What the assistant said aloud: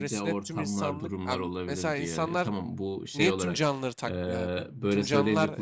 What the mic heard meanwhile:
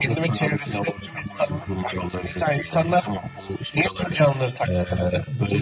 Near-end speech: none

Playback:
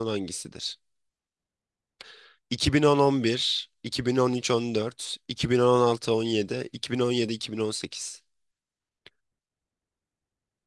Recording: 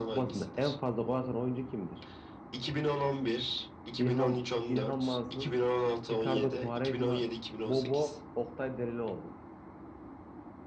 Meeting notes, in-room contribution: present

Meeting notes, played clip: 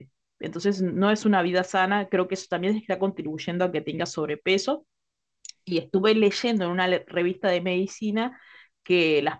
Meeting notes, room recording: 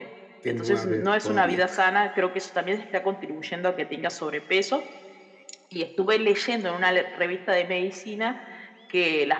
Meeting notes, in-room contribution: present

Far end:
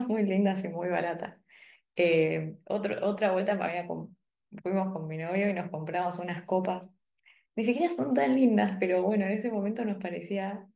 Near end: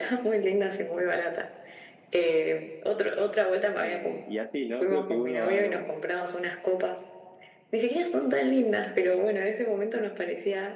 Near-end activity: present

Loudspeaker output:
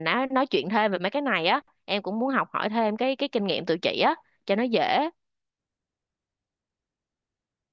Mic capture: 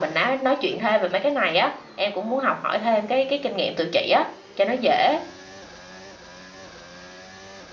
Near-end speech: none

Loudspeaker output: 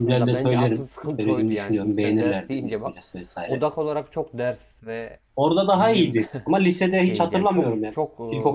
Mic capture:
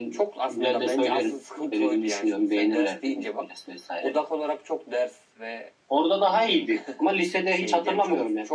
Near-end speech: none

